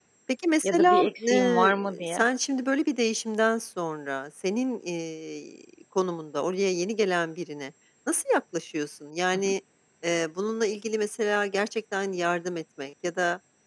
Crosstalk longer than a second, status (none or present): present